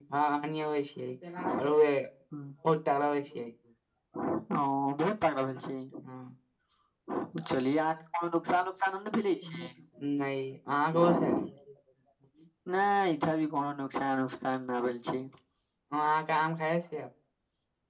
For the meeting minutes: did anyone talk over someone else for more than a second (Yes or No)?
No